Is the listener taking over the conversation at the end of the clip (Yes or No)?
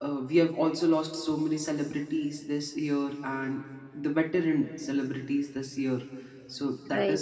No